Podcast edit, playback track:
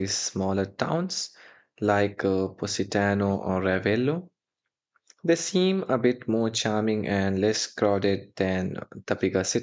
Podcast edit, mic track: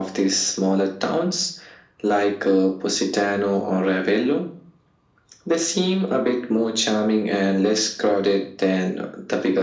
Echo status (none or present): present